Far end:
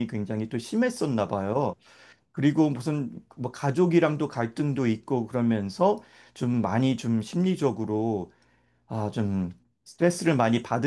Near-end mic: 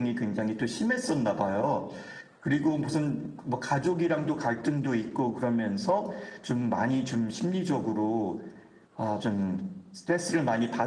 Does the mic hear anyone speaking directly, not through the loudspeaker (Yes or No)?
No